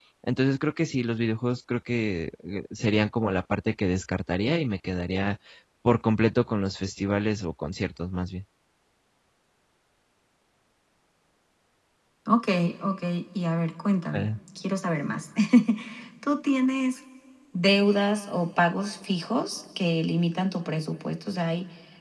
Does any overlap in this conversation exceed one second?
No

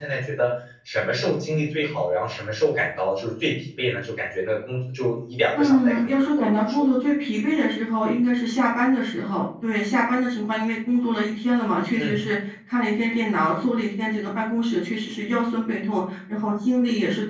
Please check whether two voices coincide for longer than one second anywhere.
Yes, from 5.5 s

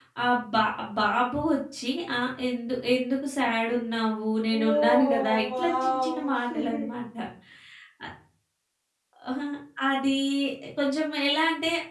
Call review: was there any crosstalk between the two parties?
Yes, from 4.5 s

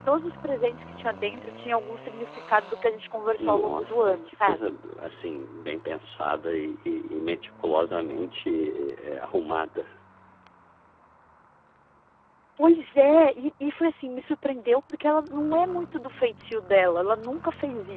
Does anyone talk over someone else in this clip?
Yes, from 3.4 s

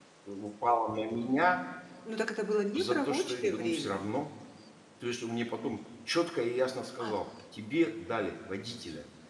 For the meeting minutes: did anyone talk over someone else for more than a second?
Yes, from 2.7 s

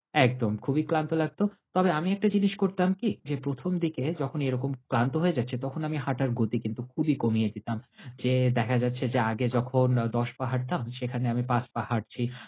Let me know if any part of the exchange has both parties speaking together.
No

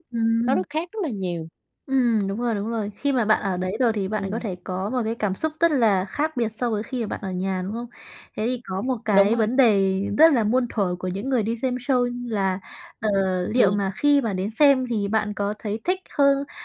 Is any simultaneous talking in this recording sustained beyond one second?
No

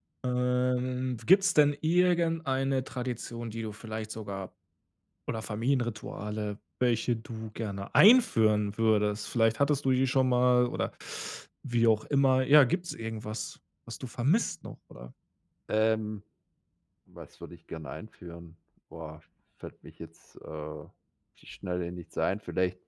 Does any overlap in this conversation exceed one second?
No

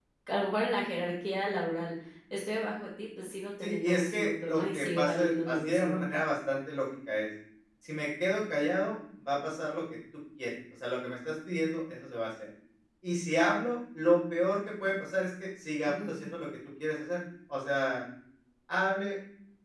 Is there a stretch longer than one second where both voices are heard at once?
Yes, from 3.6 s

